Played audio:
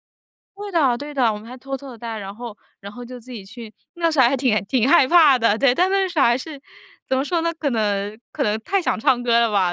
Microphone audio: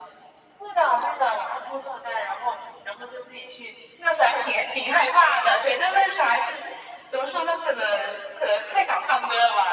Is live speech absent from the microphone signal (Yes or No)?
Yes